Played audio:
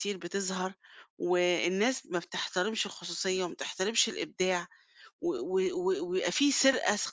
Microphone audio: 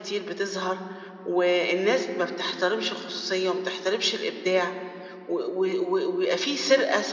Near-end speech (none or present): none